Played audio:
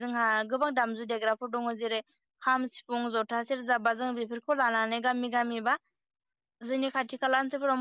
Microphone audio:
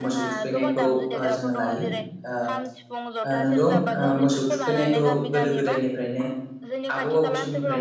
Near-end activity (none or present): present